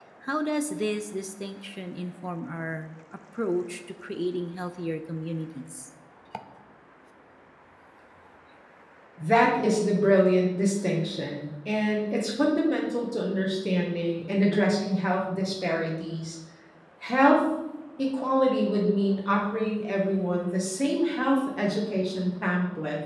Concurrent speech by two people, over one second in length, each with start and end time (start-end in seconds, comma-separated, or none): none